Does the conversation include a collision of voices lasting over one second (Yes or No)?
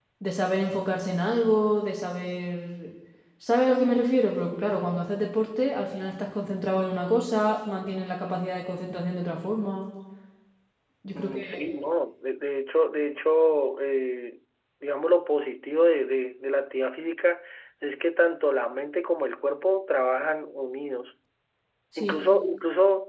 No